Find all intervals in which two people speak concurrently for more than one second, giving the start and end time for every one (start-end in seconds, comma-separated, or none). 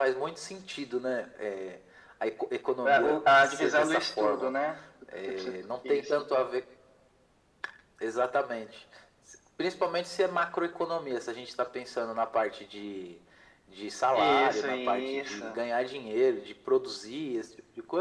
2.8-4.5, 14.1-15.6